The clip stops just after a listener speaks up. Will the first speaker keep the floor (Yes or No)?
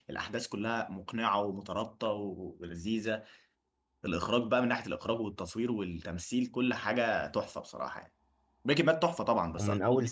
No